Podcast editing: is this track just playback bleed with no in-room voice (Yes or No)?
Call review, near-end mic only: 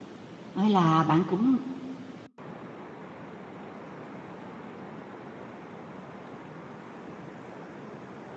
No